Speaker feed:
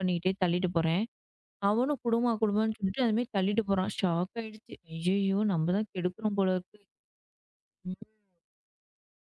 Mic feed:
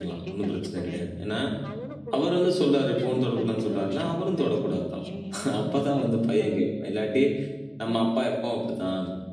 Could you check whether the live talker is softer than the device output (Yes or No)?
No